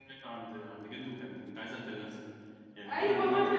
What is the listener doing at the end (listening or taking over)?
taking over